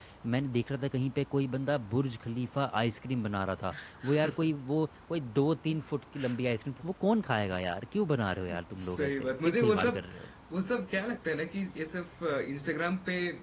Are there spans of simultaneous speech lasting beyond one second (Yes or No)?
Yes